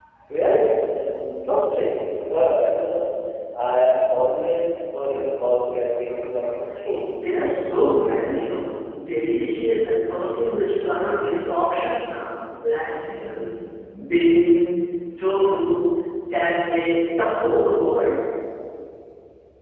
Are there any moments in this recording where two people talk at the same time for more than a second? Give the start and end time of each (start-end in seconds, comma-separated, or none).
none